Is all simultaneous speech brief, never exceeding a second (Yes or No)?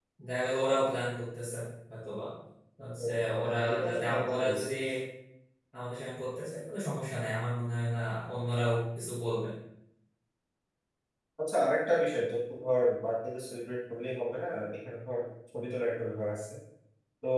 No